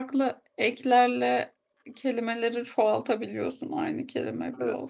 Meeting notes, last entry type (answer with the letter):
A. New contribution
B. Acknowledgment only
A